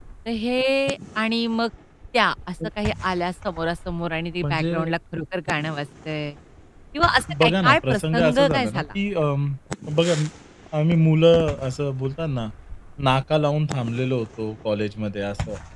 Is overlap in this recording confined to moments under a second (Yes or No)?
No